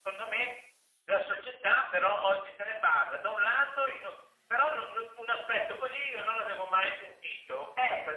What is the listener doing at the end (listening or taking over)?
listening